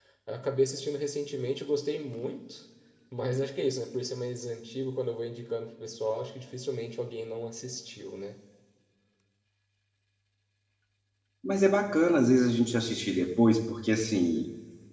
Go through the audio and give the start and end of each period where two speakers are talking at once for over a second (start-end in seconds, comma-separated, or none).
none